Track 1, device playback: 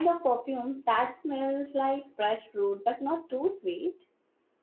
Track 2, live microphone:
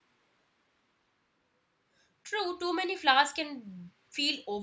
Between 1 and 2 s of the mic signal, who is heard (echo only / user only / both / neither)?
neither